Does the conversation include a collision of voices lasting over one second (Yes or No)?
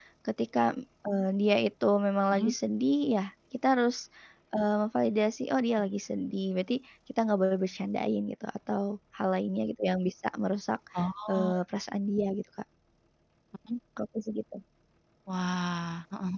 No